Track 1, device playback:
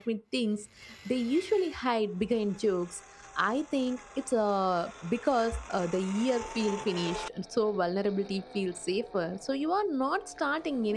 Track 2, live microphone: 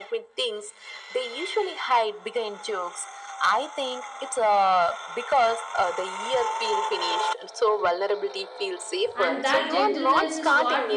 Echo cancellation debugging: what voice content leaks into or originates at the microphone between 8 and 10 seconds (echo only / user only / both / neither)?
both